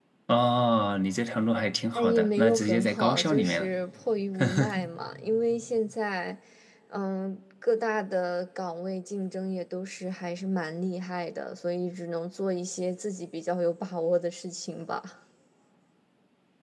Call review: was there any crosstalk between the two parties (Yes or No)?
Yes